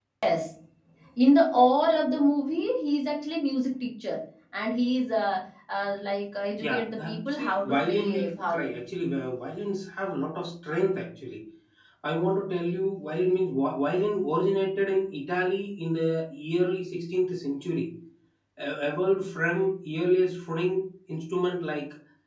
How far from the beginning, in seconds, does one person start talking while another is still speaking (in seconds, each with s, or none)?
6.6 s